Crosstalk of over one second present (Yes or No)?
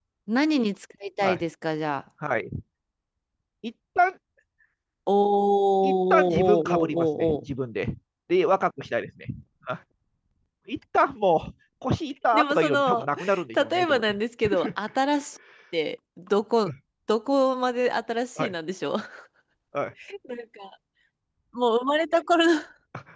Yes